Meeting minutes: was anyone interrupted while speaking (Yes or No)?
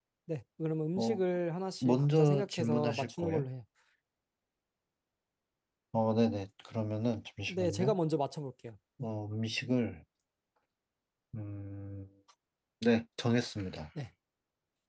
Yes